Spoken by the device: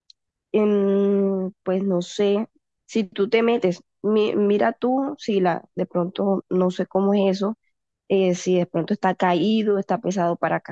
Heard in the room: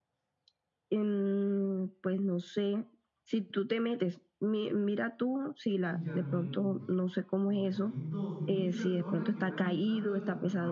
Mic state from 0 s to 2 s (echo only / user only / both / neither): echo only